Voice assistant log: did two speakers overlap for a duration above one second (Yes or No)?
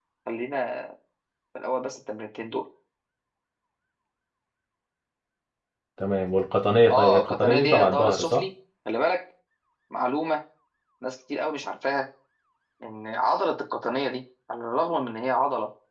Yes